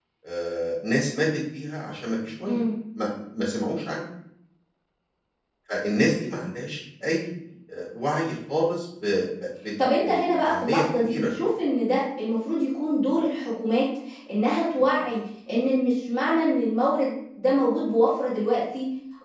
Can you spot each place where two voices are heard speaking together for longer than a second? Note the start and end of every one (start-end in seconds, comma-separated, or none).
9.8-11.4